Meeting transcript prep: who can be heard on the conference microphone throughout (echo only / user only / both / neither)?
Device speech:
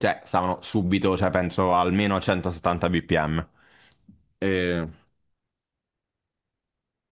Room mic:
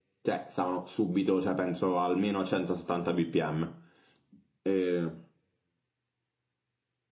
echo only